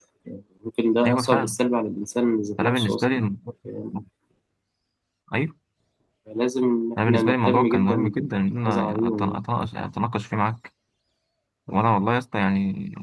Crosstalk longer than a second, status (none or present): present